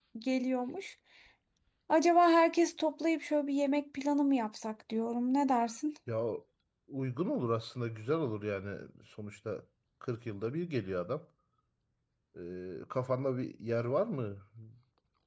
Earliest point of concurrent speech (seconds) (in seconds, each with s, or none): none